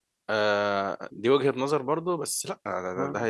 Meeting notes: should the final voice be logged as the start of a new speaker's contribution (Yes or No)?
No